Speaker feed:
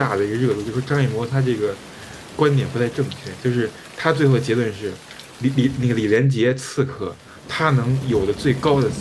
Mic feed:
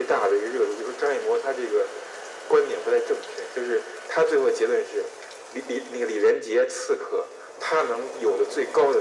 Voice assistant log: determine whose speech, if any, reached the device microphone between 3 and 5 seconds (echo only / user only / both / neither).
echo only